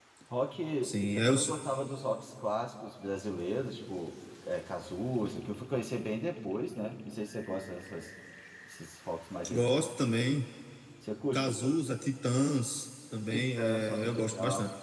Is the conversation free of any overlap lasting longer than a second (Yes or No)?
No